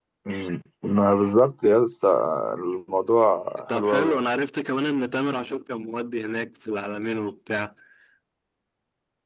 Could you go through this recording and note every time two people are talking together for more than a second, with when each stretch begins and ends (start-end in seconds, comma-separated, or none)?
none